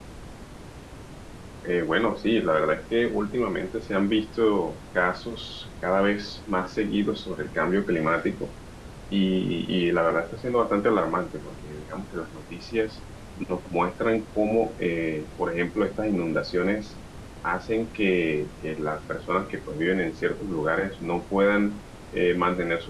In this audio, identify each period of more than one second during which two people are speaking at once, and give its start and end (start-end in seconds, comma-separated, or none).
none